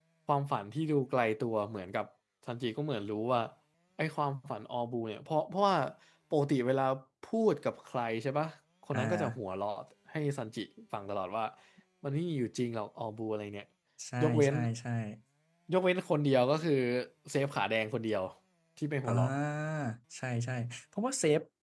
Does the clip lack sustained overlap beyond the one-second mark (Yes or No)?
Yes